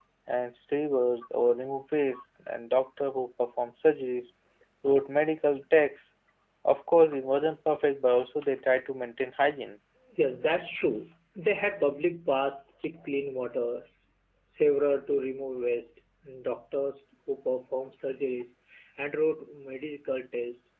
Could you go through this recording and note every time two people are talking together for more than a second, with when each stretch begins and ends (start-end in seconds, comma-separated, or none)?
none